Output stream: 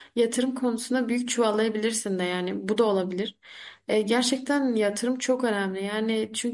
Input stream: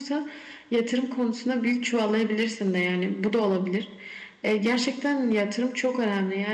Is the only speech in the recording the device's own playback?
Yes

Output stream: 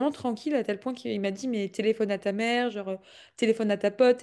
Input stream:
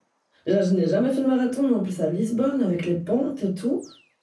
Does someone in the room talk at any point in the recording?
Yes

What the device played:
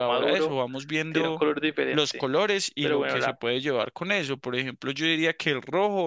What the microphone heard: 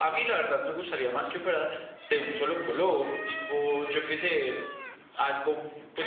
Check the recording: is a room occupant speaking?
Yes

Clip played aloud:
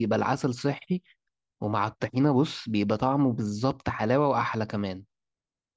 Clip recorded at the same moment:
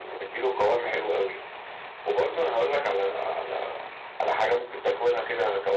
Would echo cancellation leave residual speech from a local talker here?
Yes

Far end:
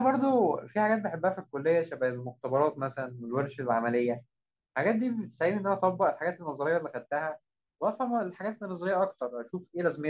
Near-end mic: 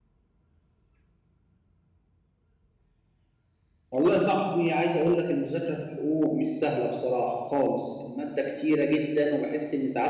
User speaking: Yes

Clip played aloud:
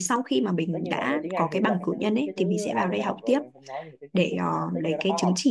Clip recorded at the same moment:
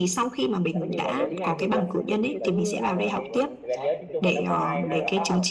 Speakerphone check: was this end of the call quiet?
No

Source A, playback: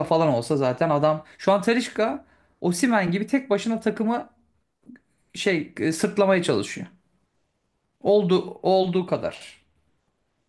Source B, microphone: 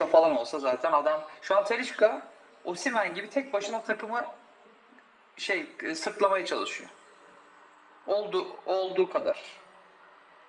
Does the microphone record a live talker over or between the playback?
No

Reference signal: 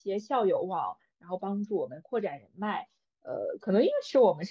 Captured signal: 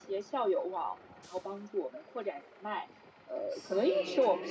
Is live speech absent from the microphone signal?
No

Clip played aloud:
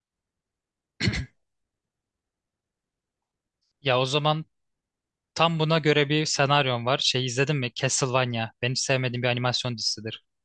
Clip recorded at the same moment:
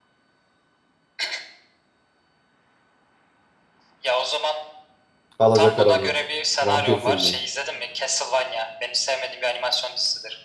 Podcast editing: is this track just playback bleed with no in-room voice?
No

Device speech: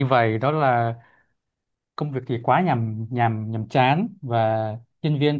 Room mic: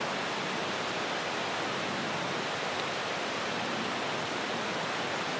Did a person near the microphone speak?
No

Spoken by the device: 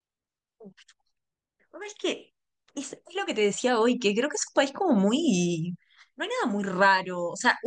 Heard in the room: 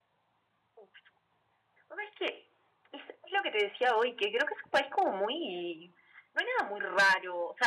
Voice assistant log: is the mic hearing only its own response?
Yes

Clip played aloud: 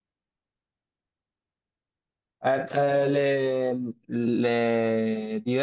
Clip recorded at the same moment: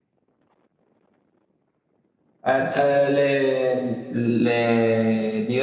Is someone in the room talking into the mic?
No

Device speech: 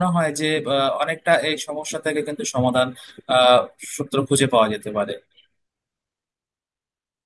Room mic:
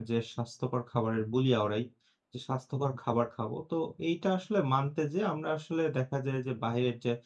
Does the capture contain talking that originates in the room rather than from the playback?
Yes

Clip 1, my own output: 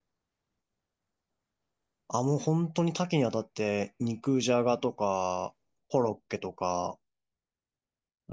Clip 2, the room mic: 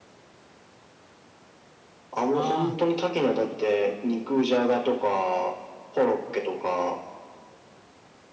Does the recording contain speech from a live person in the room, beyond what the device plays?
Yes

